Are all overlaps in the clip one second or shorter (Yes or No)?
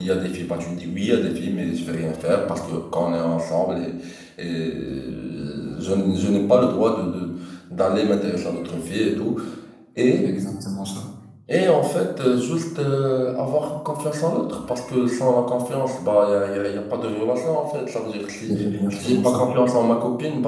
Yes